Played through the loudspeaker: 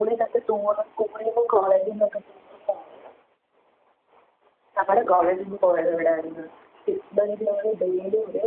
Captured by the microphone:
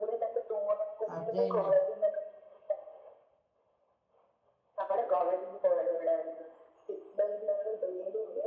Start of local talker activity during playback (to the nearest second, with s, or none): 1 s